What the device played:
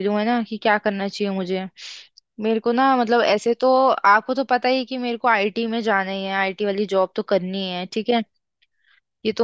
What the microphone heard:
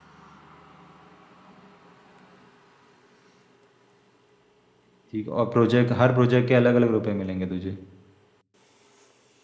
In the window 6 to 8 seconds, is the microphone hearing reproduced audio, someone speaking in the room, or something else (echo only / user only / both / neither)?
user only